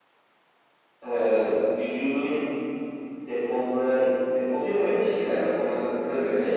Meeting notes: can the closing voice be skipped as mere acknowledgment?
No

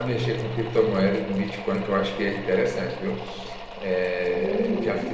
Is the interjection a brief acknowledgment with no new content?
No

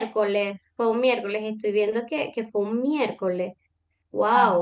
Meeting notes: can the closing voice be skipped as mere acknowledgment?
No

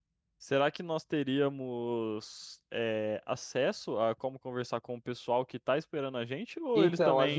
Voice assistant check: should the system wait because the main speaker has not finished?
No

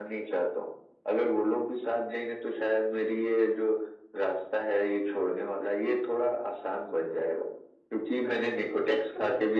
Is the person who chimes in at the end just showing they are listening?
Yes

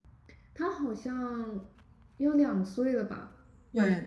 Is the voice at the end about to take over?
Yes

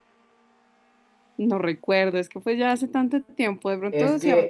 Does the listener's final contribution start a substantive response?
Yes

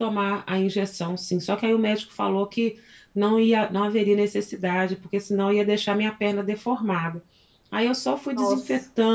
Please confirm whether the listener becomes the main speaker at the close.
No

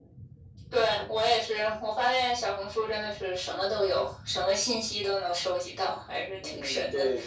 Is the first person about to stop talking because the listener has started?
Yes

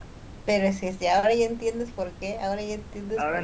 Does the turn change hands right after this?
Yes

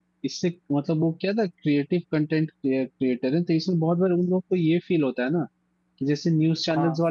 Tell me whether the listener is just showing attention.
Yes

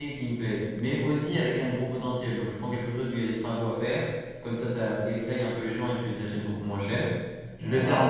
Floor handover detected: No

